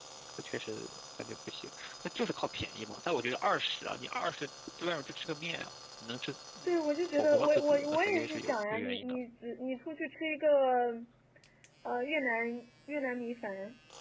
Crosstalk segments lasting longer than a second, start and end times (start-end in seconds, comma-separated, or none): 7.1-9.2